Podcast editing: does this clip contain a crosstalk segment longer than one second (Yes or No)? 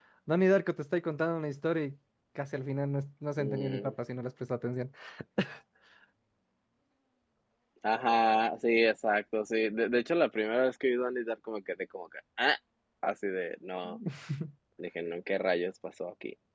No